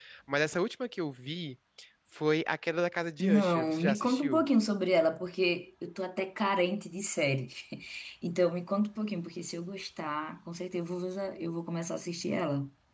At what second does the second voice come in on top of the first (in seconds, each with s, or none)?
3.2 s